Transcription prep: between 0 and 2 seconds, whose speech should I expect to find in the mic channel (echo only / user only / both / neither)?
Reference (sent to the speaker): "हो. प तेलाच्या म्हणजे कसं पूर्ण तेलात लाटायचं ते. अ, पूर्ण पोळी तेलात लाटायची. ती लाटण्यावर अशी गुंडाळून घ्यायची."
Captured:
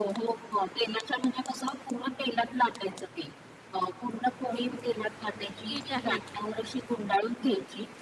echo only